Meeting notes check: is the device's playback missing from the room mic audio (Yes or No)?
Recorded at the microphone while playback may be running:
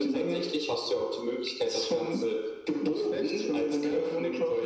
No